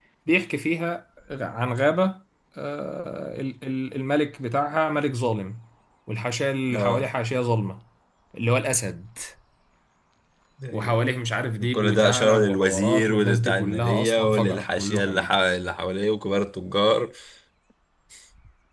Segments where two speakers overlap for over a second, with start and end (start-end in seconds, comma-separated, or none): 11.7-15.4